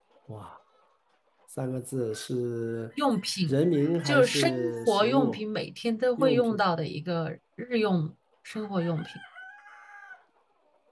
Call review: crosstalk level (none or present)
present